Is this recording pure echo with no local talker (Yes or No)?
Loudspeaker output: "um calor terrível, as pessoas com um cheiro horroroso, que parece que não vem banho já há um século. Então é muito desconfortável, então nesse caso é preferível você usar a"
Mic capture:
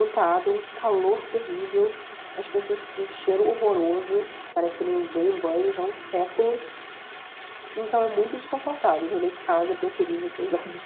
Yes